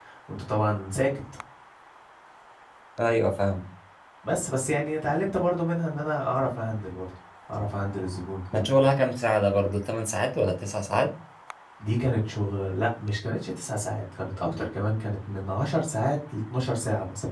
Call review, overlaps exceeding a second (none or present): none